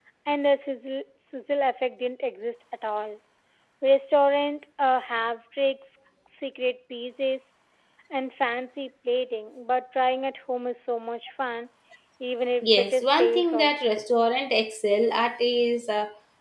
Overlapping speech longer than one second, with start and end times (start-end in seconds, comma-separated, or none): 12.6-14.0